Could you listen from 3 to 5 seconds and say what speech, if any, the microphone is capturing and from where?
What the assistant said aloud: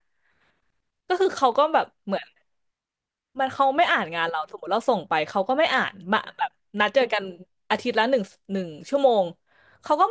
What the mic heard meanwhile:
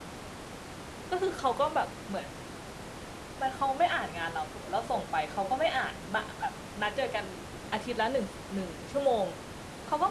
echo only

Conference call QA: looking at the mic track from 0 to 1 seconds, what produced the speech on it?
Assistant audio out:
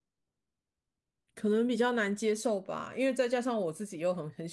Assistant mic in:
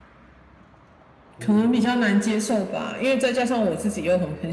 neither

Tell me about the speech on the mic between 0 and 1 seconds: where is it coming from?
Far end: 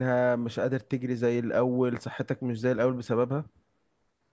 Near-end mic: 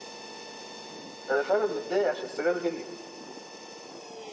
neither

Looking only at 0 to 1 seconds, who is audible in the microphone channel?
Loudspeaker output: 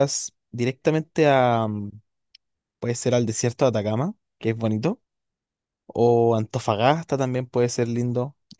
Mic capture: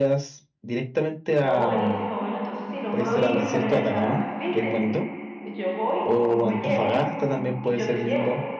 echo only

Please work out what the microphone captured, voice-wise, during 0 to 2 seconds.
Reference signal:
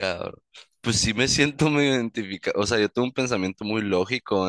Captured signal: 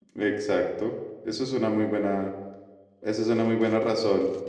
user only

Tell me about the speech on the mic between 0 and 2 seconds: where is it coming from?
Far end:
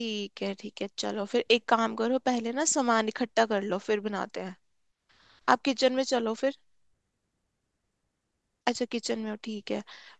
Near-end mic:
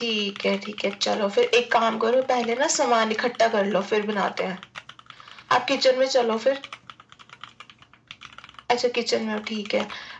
echo only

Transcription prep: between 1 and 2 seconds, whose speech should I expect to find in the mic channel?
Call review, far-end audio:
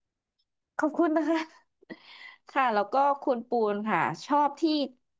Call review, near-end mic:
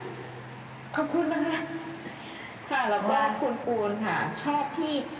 echo only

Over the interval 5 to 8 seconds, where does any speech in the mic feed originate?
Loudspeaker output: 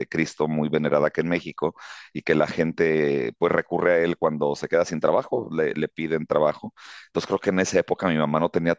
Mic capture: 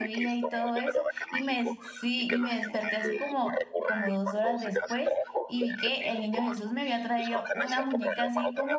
both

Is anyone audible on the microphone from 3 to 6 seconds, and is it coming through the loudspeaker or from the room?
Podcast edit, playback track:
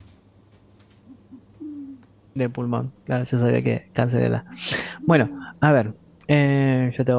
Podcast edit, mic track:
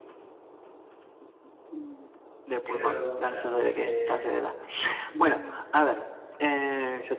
both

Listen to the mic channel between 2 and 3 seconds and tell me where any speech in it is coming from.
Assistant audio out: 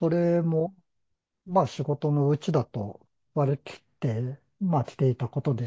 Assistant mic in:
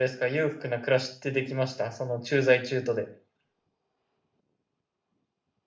user only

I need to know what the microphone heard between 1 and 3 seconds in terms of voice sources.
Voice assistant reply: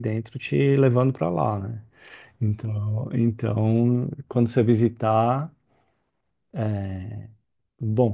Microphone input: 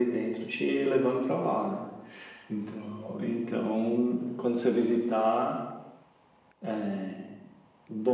echo only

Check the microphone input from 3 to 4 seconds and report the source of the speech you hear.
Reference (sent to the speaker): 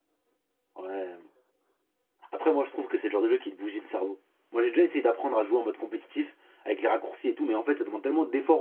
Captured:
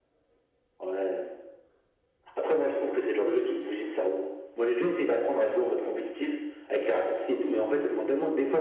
echo only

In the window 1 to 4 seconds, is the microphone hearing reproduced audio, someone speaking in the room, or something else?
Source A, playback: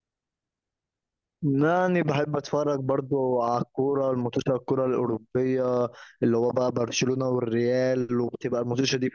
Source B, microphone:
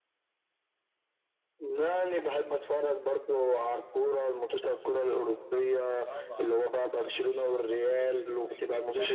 echo only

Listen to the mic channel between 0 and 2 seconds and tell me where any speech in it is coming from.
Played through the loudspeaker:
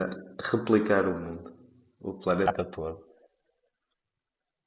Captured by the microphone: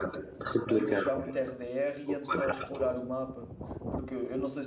both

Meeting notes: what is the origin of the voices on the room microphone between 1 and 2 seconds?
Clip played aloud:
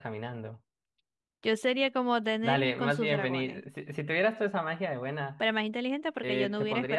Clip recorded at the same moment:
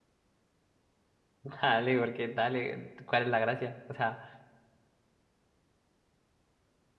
user only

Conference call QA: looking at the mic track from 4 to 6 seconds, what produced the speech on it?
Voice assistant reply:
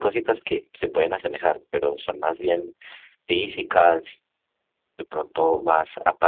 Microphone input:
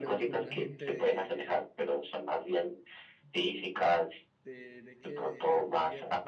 both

